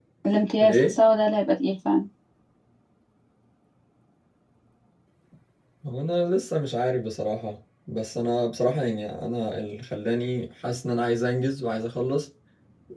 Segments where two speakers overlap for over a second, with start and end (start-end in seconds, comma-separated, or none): none